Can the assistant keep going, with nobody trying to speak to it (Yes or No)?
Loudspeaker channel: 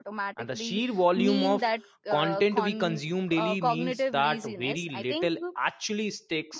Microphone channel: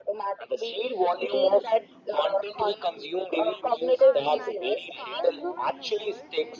No